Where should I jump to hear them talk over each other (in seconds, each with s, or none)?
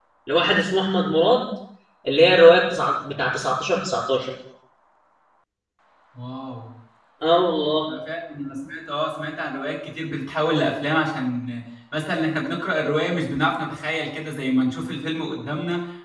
none